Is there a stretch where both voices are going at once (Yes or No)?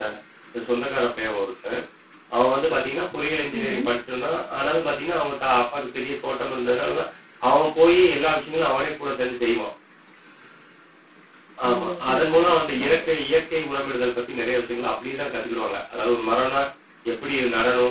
Yes